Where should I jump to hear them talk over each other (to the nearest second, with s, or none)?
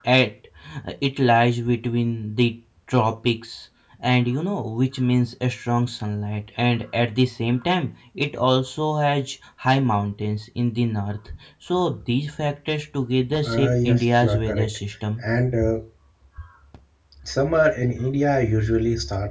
13 s